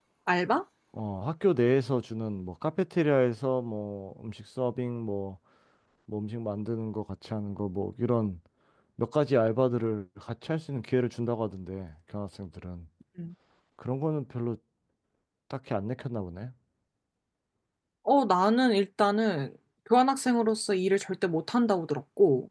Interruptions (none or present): none